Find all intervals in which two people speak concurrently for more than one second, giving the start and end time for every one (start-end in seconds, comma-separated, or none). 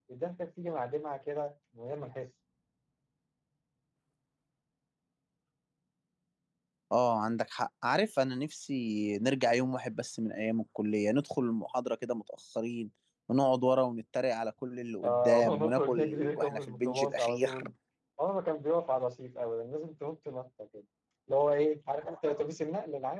15.0-17.5